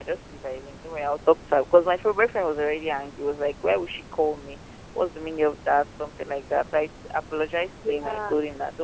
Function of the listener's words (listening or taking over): listening